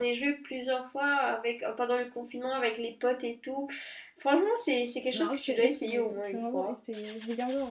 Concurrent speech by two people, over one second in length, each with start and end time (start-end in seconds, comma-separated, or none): 5.1-6.8